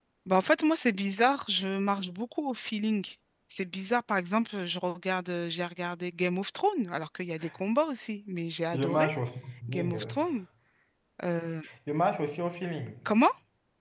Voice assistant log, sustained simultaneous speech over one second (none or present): none